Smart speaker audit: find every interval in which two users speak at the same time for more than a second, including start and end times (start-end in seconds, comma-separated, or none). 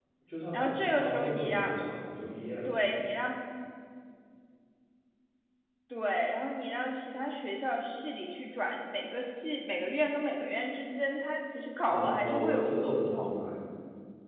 0.5-1.8, 11.9-13.4